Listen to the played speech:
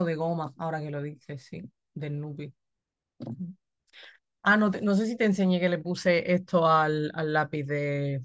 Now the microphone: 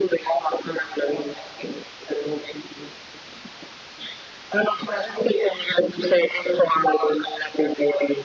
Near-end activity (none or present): none